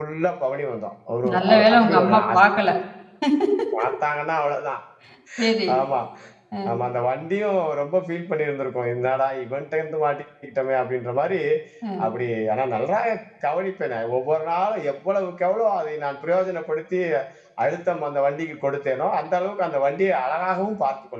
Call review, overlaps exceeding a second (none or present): present